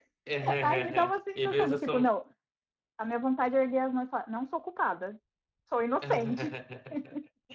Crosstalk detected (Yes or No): Yes